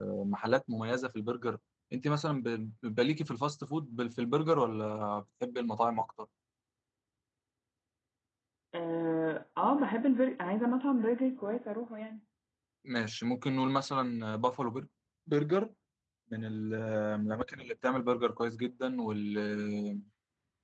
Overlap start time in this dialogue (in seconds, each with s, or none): none